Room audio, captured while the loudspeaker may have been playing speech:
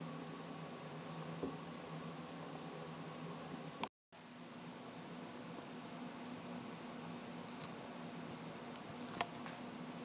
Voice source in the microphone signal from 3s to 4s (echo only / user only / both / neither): neither